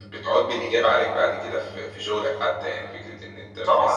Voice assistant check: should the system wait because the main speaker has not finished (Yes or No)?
No